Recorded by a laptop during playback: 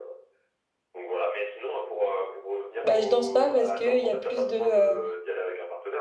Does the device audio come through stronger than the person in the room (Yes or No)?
No